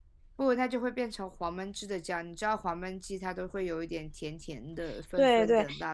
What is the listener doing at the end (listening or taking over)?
taking over